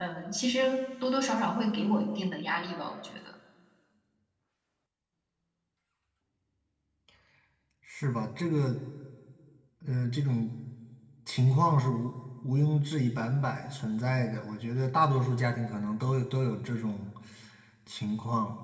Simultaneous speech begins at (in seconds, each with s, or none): none